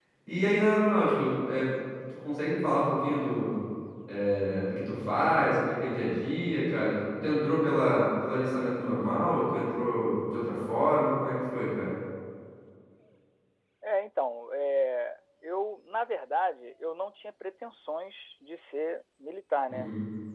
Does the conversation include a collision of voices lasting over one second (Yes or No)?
No